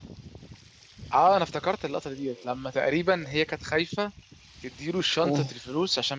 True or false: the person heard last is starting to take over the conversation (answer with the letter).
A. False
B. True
A